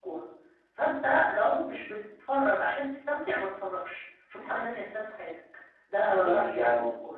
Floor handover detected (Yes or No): Yes